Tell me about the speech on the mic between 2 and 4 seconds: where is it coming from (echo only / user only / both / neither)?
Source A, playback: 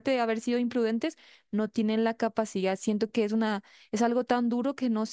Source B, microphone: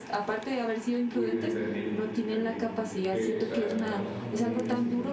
both